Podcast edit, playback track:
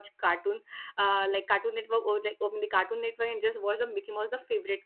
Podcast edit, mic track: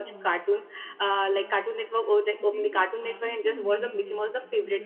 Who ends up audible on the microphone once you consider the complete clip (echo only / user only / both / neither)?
both